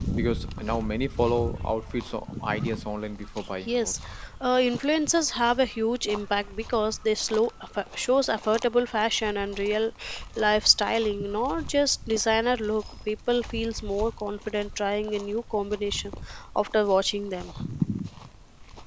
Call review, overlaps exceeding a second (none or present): none